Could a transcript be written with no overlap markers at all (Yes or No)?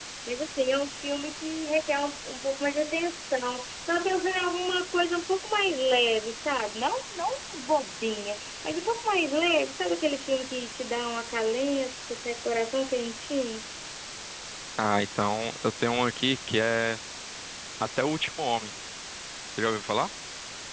Yes